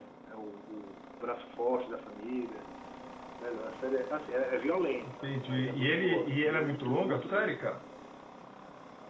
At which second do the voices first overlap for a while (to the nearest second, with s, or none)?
5 s